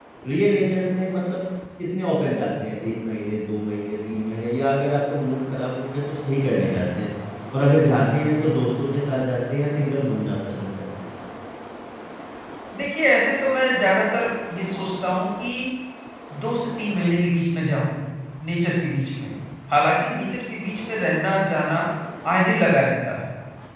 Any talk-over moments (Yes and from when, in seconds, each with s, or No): No